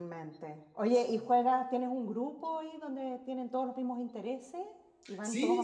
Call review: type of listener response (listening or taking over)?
taking over